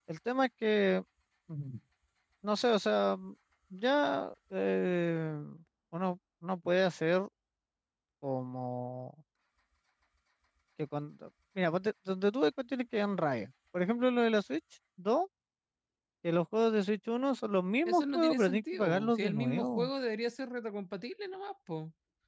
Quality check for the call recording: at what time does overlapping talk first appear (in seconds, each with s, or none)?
17.9 s